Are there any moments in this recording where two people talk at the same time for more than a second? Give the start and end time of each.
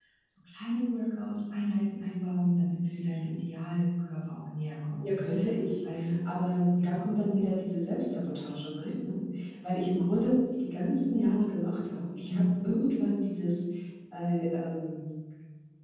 none

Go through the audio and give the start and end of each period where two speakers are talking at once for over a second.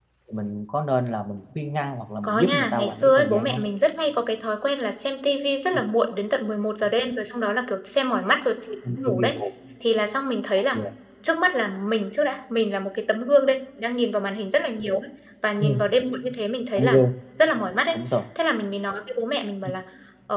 2.2-3.6

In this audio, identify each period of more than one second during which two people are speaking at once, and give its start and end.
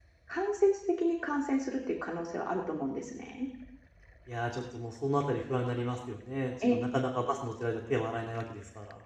none

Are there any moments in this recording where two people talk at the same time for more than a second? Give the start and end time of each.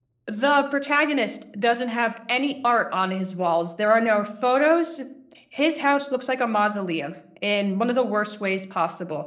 none

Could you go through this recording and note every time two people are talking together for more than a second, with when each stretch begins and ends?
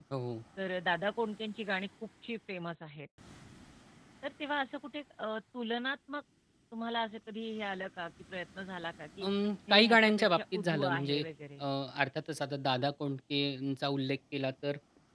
9.7-11.2

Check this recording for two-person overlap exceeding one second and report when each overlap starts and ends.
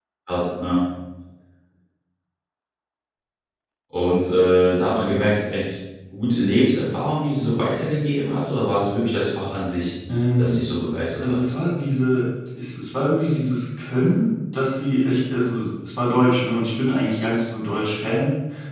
none

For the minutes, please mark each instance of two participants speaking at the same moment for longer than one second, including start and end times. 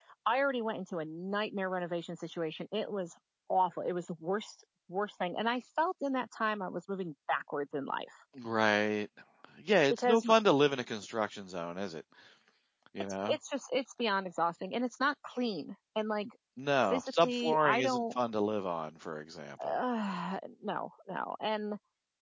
16.9-18.1

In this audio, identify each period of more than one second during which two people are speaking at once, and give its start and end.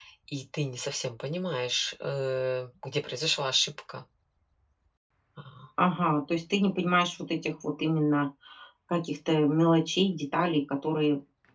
none

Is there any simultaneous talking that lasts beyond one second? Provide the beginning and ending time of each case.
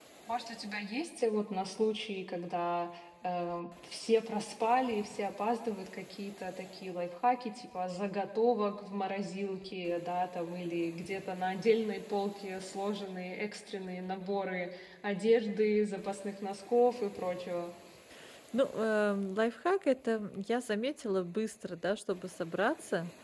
none

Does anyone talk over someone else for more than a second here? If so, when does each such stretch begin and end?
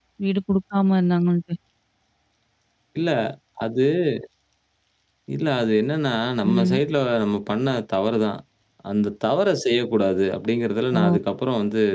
none

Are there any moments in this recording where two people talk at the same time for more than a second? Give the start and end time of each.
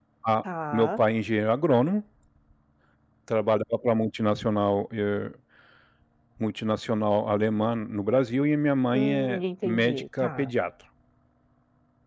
8.9-10.5

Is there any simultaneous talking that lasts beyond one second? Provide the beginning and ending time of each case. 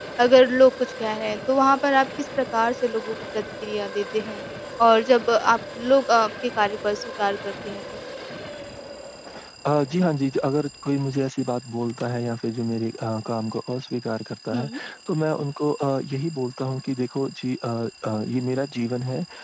none

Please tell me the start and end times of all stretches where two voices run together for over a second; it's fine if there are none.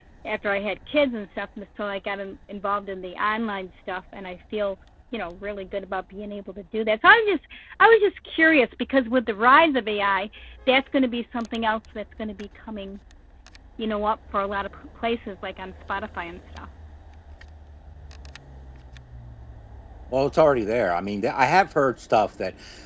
none

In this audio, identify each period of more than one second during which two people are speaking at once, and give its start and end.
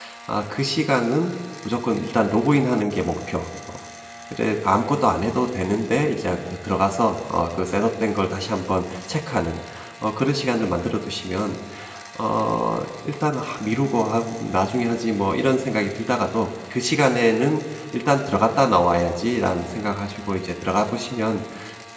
none

